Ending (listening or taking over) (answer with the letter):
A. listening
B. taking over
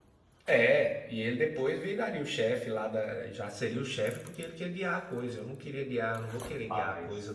A